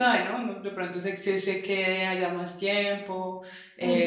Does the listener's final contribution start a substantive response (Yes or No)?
Yes